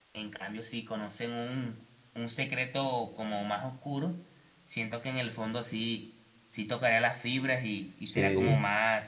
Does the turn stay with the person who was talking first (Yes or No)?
Yes